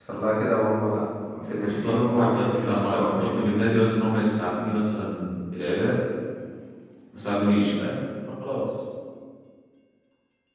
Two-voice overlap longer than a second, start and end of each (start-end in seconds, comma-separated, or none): 1.6-3.5